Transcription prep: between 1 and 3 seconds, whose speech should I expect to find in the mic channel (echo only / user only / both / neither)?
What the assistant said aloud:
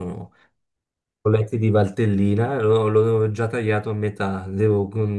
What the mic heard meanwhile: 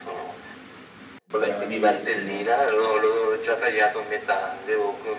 both